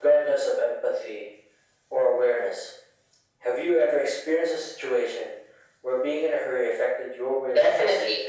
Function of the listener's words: taking over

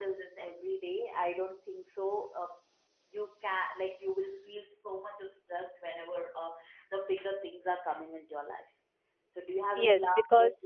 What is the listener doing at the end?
taking over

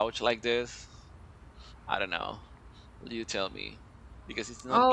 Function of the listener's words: taking over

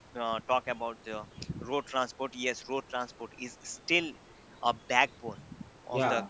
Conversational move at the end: listening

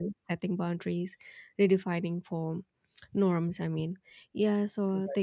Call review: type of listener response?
listening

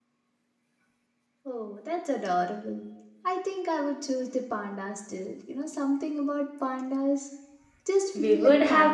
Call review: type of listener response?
taking over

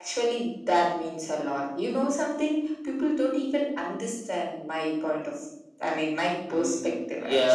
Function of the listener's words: taking over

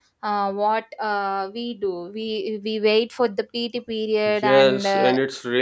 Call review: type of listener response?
taking over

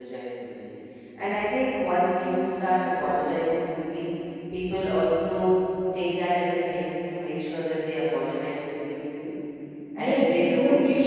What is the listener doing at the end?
taking over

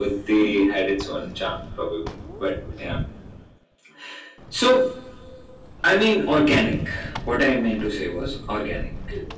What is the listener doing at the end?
listening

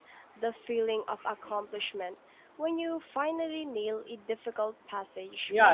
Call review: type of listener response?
taking over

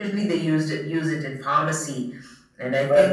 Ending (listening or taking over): taking over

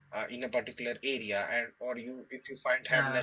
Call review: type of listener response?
listening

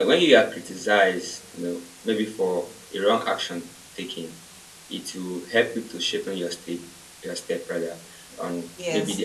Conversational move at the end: taking over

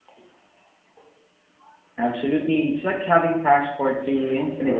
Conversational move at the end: taking over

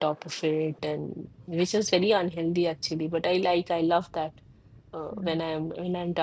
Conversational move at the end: listening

